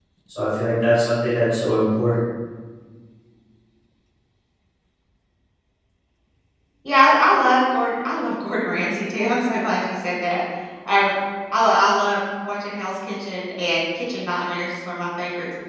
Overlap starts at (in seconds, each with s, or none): none